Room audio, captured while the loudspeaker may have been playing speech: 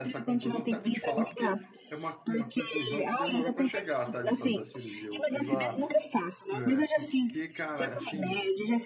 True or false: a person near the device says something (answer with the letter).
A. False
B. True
B